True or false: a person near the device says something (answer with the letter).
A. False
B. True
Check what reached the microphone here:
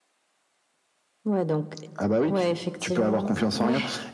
A